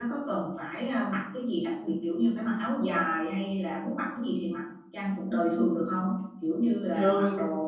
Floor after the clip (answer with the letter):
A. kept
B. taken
A